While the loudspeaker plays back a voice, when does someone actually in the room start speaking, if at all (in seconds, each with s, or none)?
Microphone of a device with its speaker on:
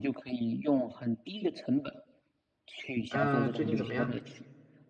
3.1 s